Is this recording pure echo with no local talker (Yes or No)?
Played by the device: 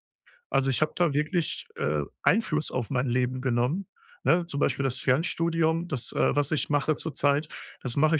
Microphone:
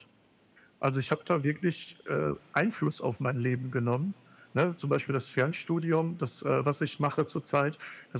Yes